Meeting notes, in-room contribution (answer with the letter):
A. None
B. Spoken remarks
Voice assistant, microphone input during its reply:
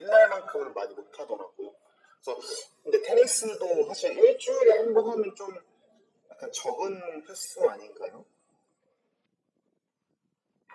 A